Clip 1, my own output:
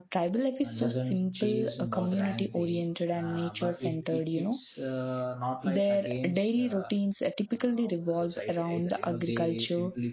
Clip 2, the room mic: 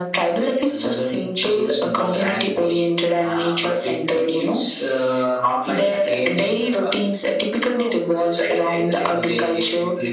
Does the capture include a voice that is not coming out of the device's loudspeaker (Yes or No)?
No